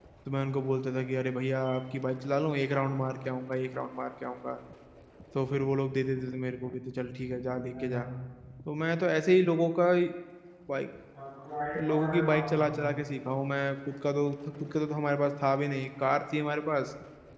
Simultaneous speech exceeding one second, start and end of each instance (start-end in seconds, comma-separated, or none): 11.8-13.1